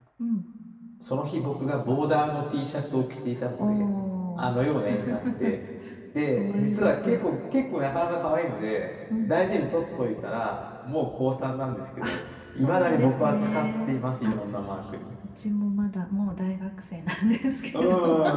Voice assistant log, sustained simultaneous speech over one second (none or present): present